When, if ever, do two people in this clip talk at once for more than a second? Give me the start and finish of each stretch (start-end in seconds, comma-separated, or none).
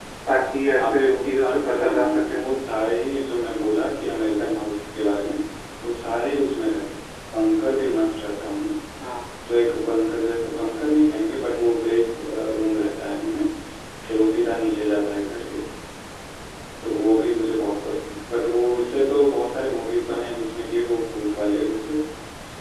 0.8-2.4